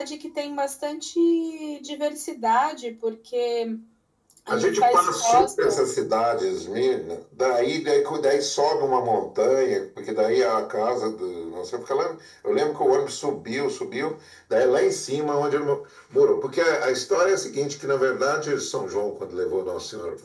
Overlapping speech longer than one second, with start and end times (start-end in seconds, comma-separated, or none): 4.5-5.8